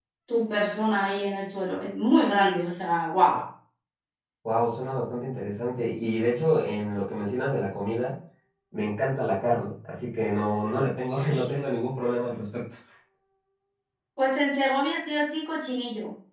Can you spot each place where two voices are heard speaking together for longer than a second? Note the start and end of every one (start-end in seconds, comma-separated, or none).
none